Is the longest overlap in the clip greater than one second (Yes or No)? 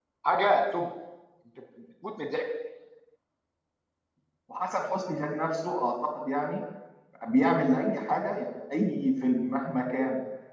No